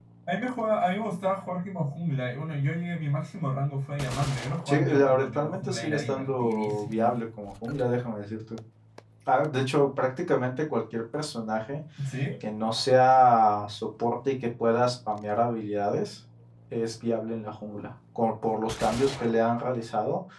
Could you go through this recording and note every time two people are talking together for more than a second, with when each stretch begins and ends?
4.7-7.2

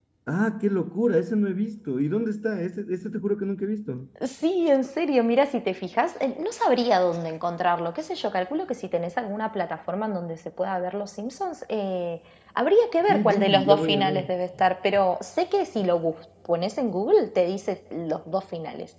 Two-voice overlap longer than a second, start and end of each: 13.0-14.3

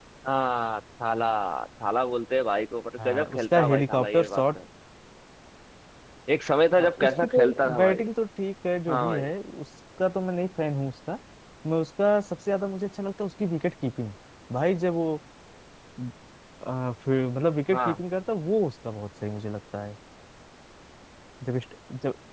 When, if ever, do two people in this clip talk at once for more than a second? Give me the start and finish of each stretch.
3.0-4.4, 6.8-8.0

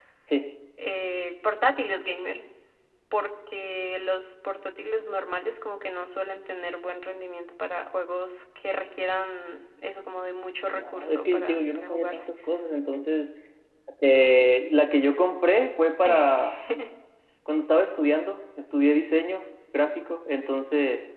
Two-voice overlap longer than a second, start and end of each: 10.8-12.2

